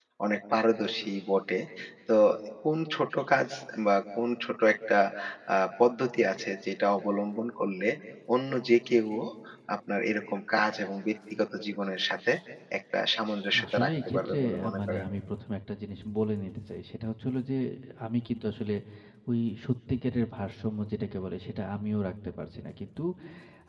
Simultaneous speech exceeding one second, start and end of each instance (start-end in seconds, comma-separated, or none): 13.7-15.1